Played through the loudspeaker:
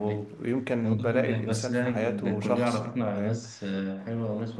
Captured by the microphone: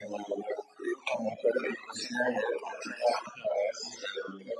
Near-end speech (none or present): none